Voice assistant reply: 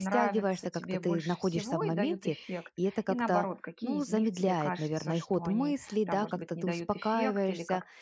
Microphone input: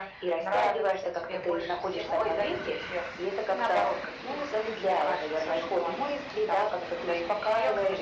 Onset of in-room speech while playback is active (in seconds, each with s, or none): none